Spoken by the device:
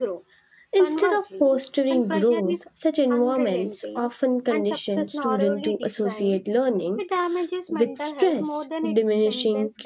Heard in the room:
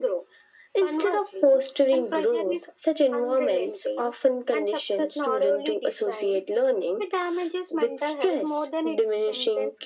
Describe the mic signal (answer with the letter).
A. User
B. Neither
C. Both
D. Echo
D